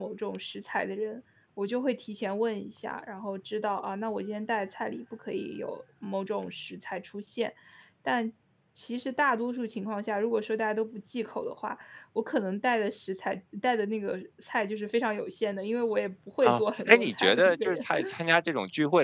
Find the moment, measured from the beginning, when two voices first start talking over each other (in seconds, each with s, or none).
16.4 s